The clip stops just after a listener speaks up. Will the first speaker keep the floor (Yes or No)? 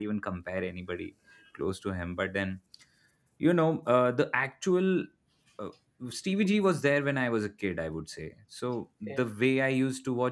Yes